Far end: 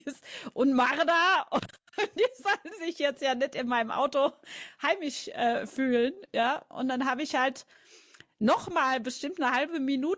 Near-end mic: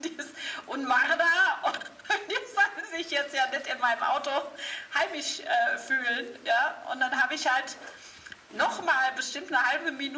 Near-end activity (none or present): none